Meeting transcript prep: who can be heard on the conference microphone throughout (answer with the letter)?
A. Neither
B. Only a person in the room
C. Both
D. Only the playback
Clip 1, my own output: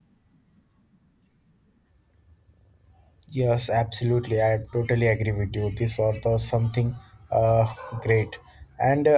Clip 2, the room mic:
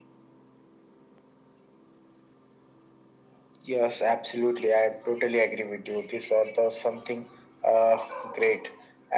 D